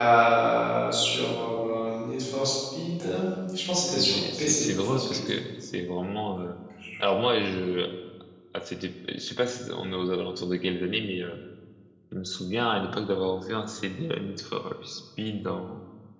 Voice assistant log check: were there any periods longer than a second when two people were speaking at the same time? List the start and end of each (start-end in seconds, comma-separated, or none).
4.0-5.3